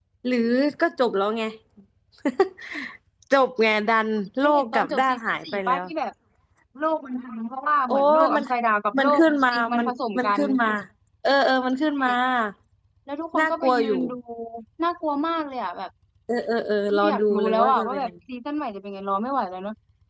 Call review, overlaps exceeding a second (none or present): present